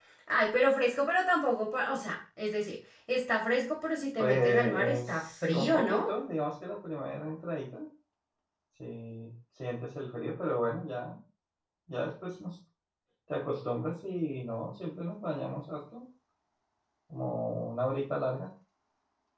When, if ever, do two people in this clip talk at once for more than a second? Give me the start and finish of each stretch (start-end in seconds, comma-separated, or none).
4.2-6.0